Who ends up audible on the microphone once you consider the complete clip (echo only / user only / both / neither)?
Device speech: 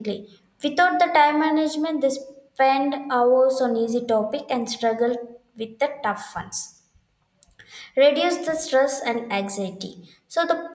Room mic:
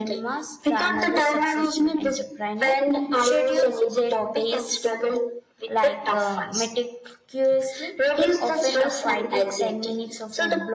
both